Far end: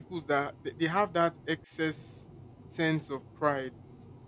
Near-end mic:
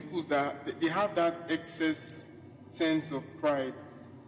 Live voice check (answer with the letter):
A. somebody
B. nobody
B